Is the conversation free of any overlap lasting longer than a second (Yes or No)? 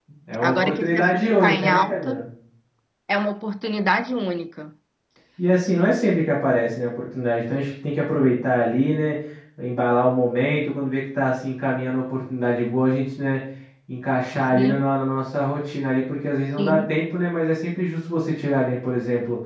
No